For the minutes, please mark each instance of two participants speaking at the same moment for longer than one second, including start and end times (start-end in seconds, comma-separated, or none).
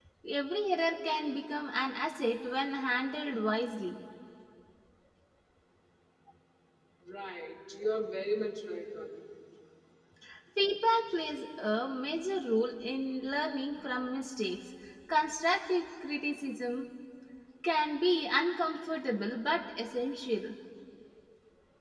none